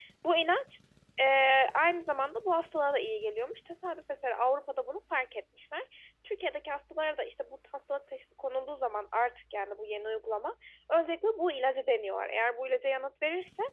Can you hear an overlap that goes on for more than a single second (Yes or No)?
No